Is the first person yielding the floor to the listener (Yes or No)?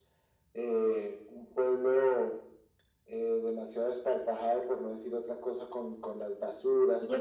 Yes